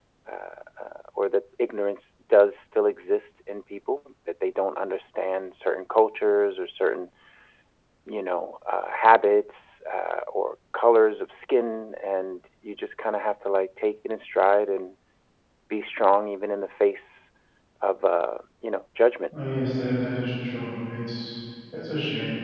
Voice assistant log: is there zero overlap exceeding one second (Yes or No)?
Yes